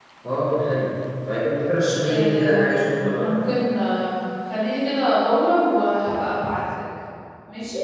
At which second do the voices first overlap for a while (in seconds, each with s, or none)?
2.0 s